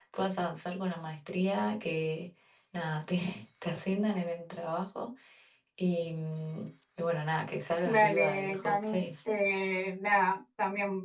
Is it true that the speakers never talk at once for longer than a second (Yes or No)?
No